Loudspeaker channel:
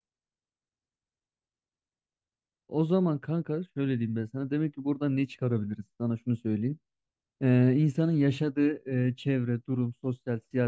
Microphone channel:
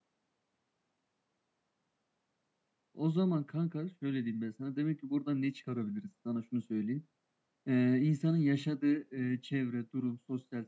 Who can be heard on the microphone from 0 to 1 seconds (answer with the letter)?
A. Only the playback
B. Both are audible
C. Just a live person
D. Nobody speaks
D